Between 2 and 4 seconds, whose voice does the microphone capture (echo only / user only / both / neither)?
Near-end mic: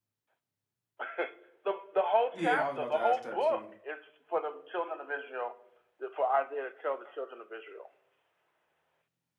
both